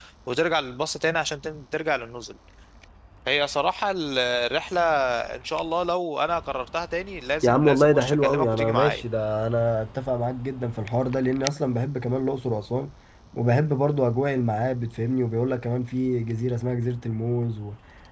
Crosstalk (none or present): present